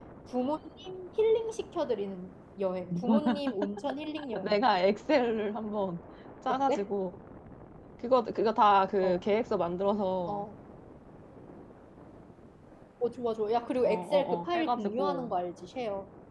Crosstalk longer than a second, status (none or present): present